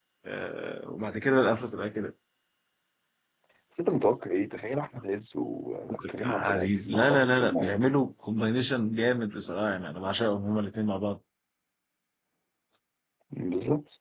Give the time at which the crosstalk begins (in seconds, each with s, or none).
5.9 s